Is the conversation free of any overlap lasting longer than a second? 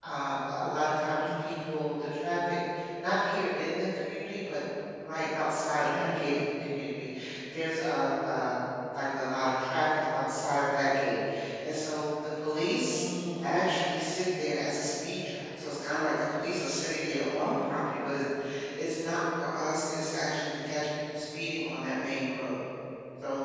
Yes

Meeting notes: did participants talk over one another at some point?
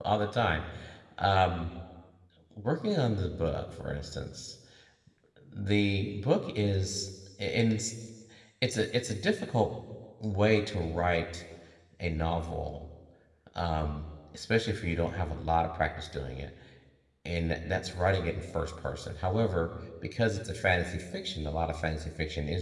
No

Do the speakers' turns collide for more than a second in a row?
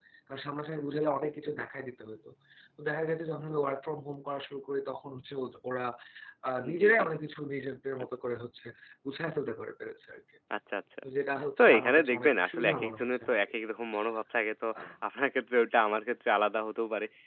Yes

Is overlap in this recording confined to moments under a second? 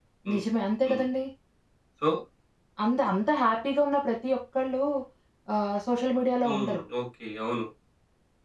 Yes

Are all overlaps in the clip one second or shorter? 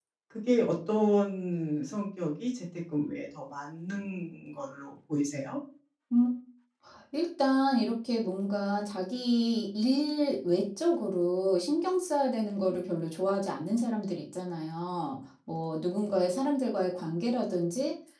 Yes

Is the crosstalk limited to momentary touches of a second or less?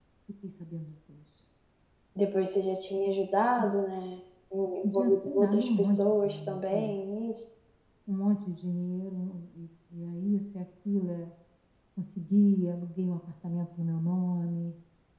No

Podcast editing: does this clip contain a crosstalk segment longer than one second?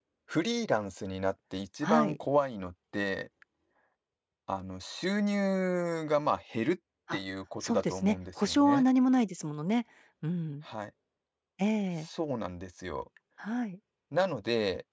Yes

